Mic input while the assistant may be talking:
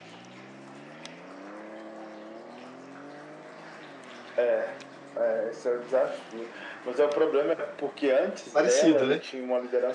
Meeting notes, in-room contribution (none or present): present